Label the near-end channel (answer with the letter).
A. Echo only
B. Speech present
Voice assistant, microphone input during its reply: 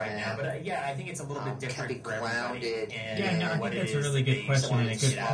B